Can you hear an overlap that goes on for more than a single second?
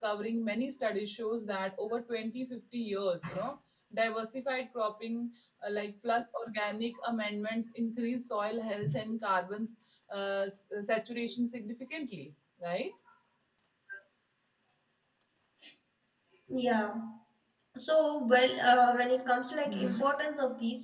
No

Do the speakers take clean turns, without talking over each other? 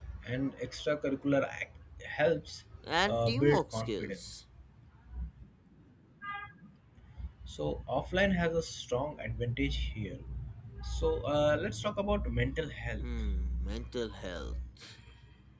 No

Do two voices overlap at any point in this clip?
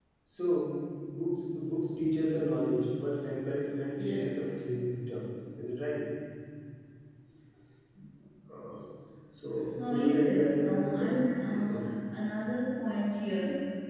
Yes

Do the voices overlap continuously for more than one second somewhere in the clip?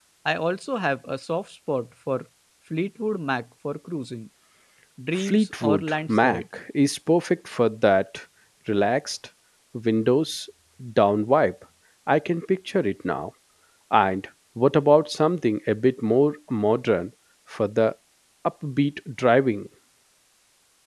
Yes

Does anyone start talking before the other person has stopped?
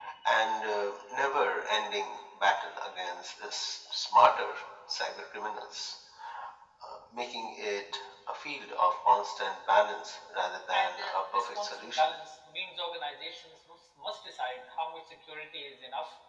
Yes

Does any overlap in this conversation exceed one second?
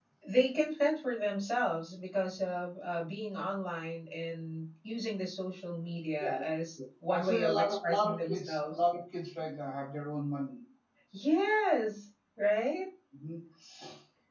Yes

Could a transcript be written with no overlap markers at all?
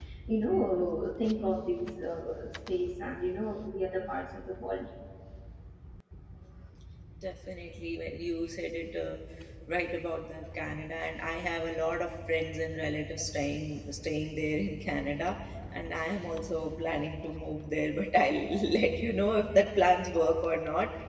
Yes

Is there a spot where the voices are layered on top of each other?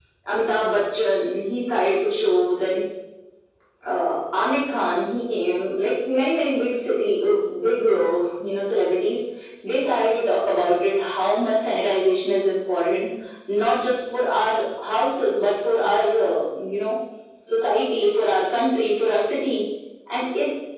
No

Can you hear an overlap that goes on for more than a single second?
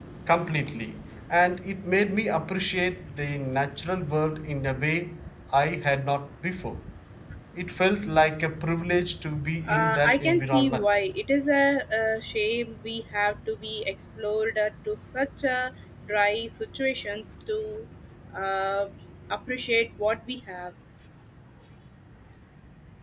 Yes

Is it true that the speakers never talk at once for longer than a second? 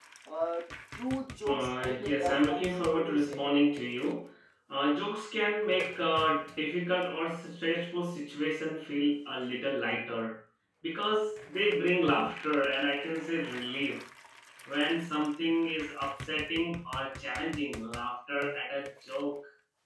No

